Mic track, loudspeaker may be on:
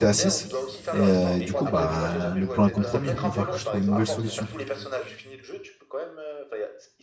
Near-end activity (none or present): present